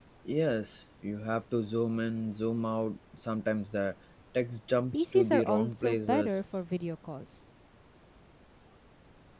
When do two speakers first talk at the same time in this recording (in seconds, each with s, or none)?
4.9 s